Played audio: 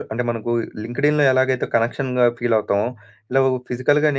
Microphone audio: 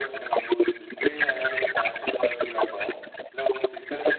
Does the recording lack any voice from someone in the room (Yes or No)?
Yes